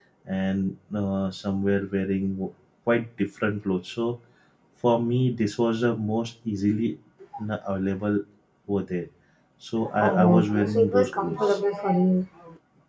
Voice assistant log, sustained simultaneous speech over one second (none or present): present